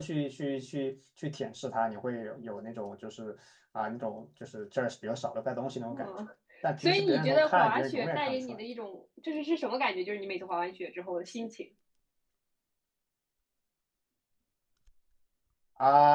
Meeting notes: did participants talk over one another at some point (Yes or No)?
Yes